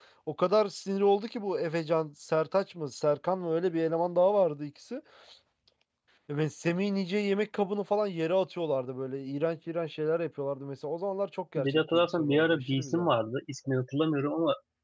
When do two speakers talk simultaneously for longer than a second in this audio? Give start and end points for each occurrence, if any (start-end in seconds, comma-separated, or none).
11.6-13.1